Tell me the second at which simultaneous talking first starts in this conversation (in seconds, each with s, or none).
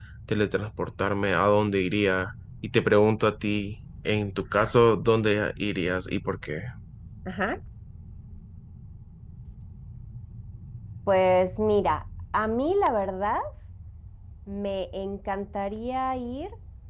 none